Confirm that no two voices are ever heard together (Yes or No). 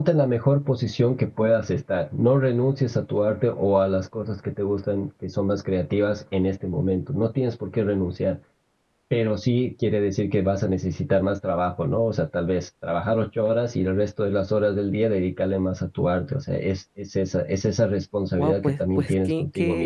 No